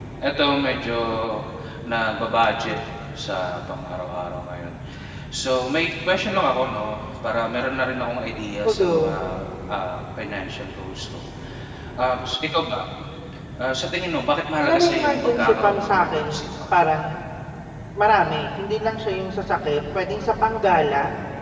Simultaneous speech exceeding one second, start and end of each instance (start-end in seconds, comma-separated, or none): 14.6-16.3